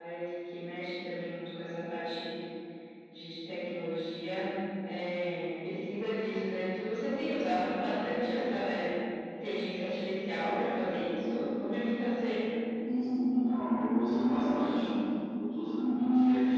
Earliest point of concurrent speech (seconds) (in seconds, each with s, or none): none